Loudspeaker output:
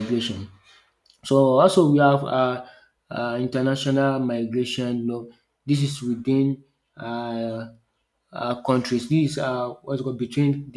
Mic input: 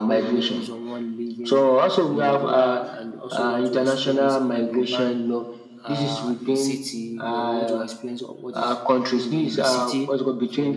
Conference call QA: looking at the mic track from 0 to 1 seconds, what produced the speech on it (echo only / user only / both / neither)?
both